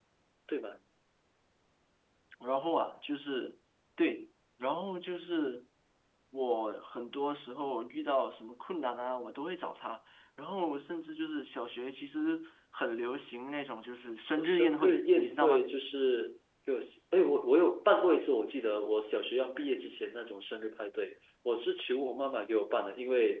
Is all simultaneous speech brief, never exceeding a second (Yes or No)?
No